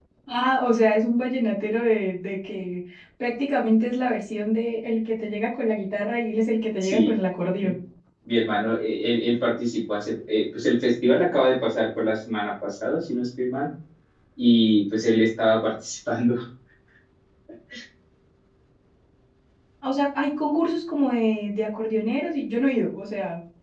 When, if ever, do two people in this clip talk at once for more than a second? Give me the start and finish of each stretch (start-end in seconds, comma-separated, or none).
none